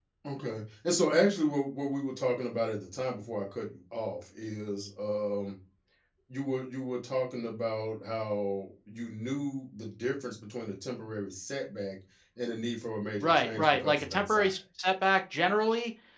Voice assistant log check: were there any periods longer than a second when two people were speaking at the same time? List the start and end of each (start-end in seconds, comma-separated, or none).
13.2-14.5